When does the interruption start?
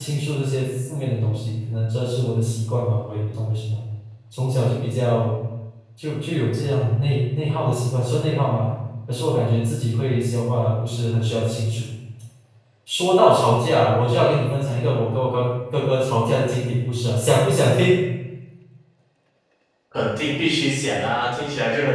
none

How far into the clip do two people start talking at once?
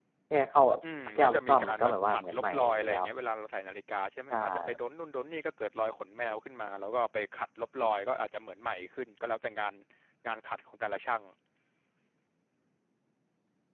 1 s

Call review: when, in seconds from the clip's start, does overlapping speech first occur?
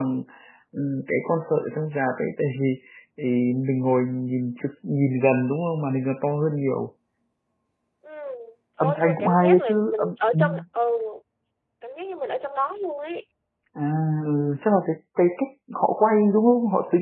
9 s

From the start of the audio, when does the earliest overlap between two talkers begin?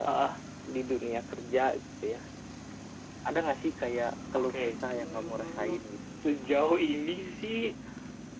4 s

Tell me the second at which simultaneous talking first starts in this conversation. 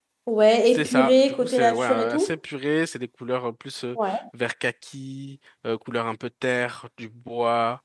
1 s

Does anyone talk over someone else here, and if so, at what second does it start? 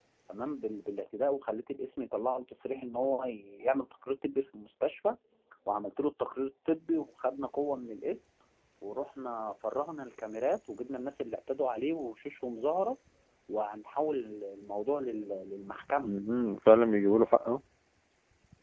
none

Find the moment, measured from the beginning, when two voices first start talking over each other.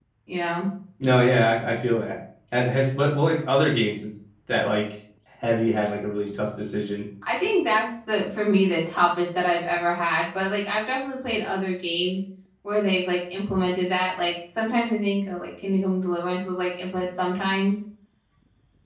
none

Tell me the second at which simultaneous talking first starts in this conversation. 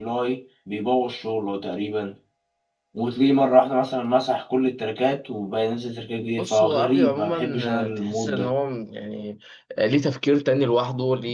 6 s

